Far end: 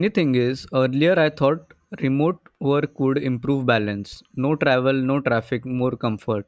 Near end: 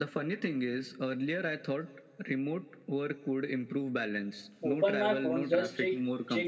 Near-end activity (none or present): present